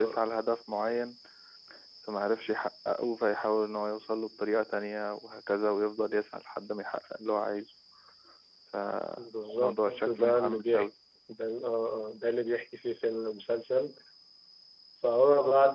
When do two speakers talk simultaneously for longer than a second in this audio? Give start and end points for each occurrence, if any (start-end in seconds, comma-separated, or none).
9.2-10.9